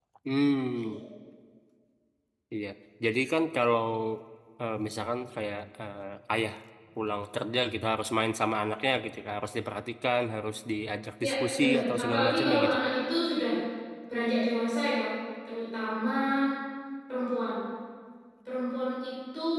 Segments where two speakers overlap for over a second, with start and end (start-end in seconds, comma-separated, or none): 11.2-12.9